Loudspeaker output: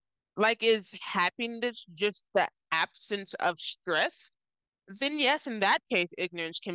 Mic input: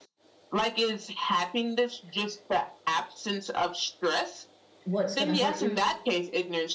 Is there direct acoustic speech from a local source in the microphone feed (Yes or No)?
Yes